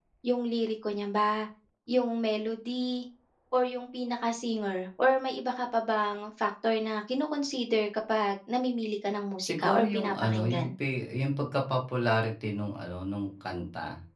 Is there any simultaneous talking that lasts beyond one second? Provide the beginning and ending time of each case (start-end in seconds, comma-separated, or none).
9.4-10.7